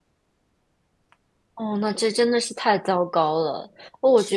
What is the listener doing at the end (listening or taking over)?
listening